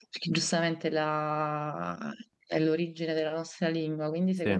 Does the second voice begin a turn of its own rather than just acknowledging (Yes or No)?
No